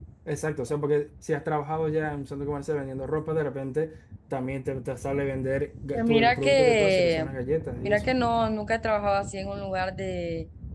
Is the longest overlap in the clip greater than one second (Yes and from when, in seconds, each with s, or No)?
Yes, from 5.9 s